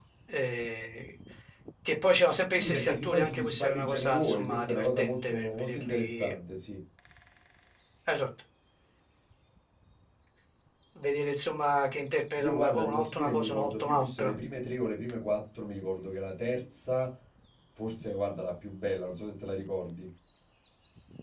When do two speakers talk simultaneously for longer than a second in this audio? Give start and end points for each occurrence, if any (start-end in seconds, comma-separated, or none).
2.5-6.3, 12.4-14.3